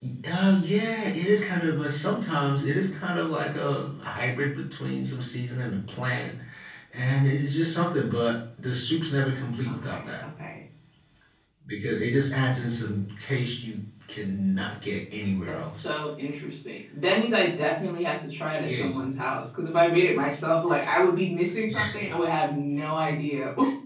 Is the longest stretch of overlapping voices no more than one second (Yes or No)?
Yes